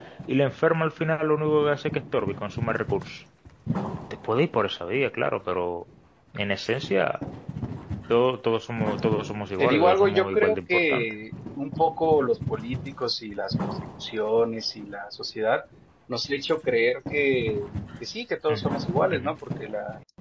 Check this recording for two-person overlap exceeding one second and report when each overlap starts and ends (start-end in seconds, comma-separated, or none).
9.6-11.1